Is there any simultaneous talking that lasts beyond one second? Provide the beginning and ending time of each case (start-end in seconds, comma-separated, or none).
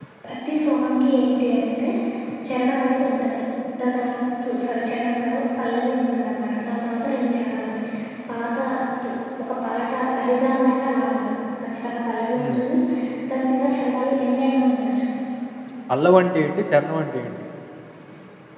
none